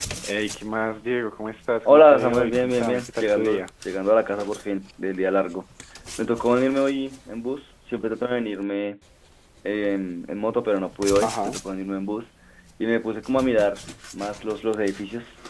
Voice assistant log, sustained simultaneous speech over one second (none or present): present